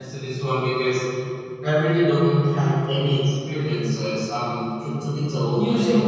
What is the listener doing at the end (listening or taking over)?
listening